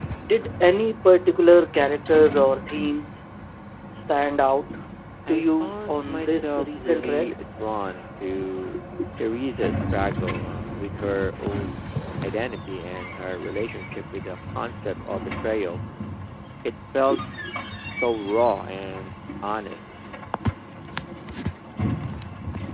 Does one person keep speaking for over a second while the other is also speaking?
Yes, from 5.3 s

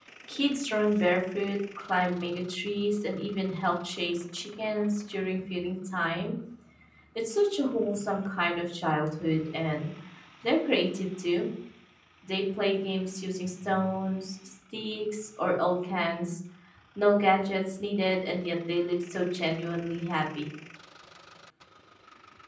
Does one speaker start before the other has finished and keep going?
No

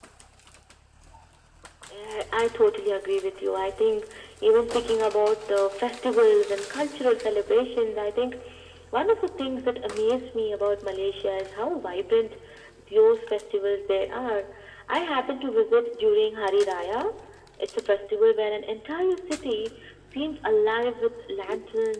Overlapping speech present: No

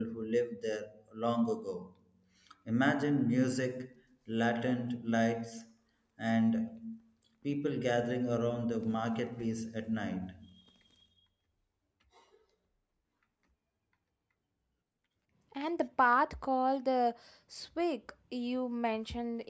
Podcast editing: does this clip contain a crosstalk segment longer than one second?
No

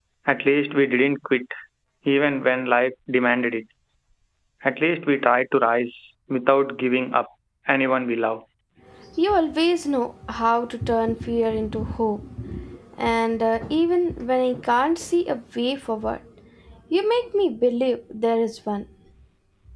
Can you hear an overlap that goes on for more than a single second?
No

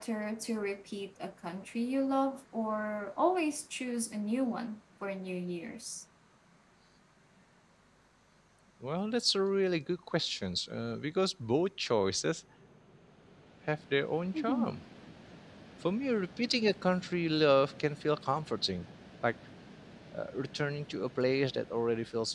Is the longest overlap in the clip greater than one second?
No

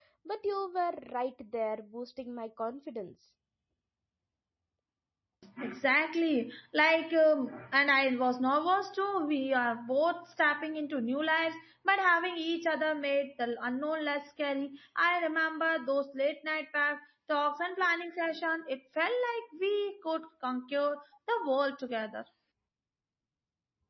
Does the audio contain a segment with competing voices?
No

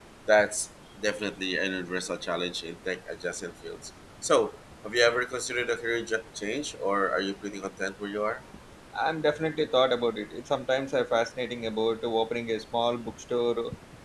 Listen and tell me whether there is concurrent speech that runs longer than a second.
No

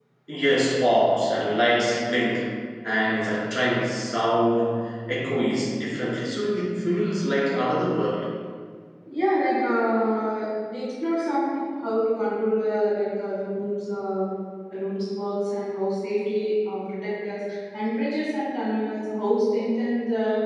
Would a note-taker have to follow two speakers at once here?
No

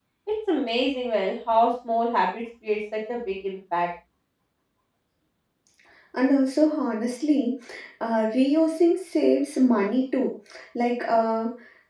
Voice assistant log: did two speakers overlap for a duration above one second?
No

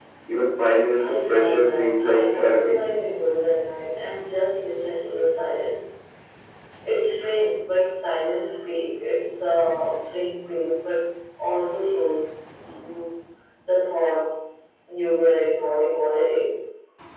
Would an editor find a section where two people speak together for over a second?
Yes, from 1.0 s

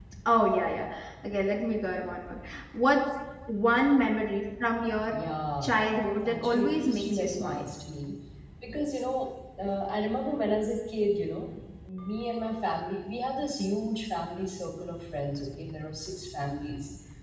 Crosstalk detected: Yes, from 6.2 s

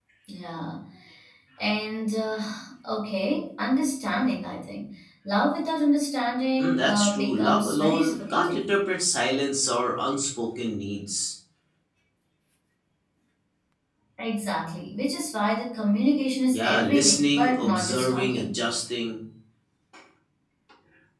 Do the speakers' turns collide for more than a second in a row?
Yes, from 6.6 s

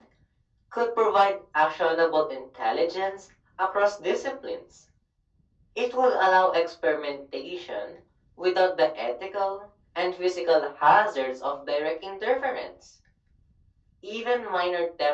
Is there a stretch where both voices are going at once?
No

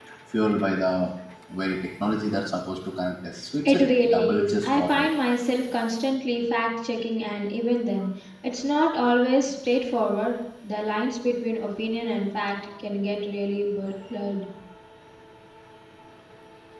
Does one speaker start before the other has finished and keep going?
Yes, from 3.6 s

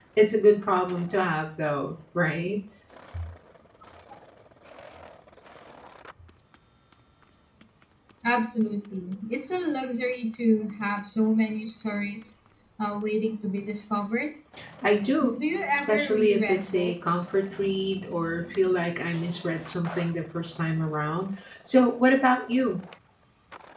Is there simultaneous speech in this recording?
Yes, from 15.2 s

